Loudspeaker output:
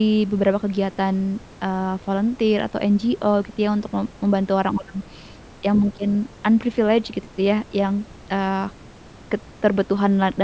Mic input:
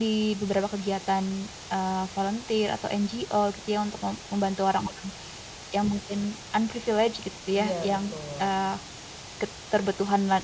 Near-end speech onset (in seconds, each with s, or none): 7.5 s